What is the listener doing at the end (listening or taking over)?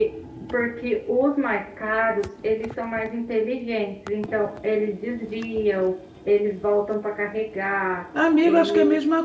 taking over